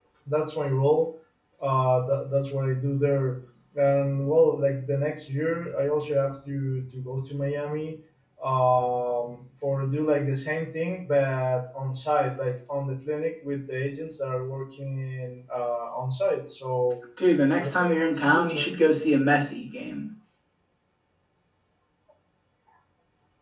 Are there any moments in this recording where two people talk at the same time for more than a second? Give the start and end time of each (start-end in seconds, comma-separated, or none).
17.6-18.8